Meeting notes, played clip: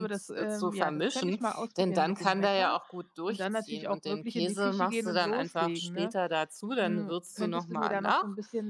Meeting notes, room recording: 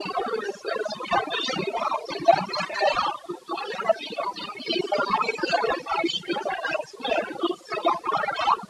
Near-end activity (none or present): none